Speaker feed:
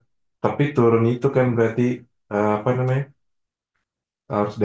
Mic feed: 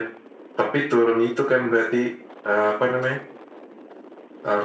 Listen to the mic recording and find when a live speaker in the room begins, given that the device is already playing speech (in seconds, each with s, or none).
none